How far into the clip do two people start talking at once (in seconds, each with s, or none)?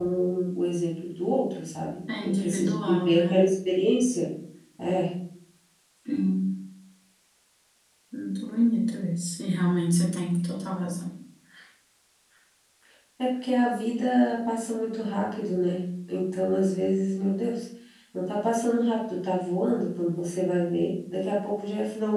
2.1 s